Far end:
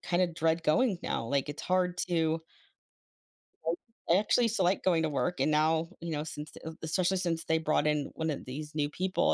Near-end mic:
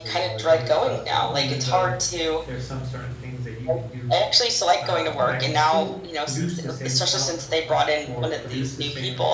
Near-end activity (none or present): present